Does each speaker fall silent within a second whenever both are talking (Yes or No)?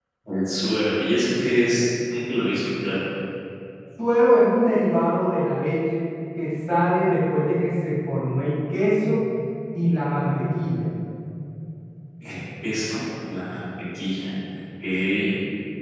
Yes